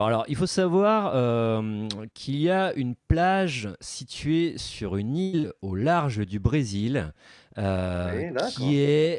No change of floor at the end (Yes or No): Yes